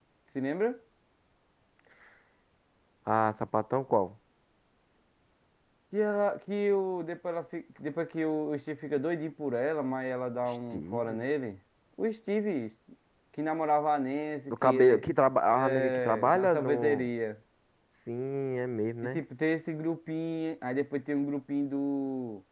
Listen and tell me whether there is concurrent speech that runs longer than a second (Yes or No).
Yes